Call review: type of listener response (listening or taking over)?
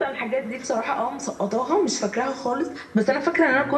listening